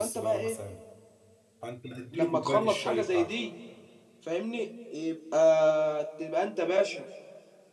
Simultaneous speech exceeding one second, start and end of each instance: 2.1-3.3

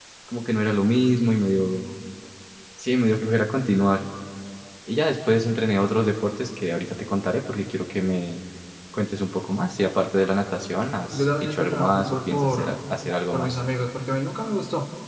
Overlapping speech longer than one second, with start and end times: 11.1-12.7

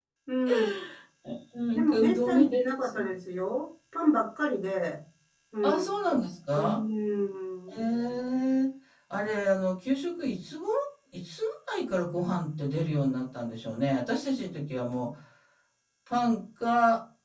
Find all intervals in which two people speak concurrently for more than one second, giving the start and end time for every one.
1.7-3.1

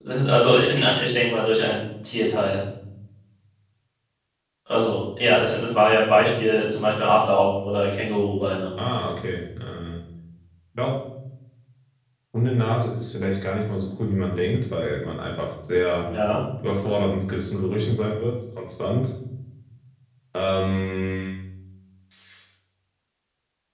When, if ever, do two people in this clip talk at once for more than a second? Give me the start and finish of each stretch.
none

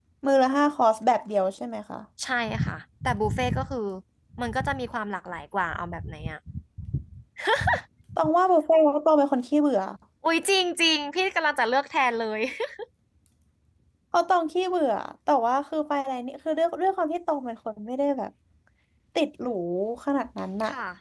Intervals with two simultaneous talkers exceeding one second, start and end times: none

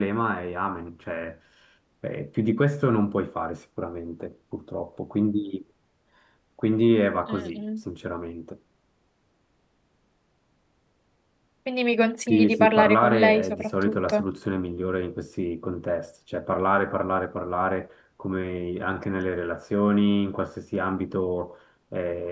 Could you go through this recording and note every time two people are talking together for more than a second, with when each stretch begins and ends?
12.3-14.2

